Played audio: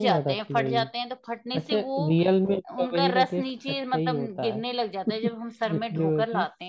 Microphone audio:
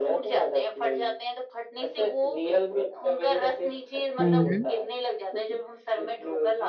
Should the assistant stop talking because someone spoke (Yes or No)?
Yes